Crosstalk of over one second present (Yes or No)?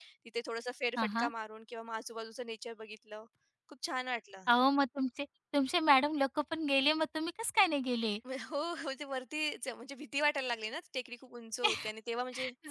No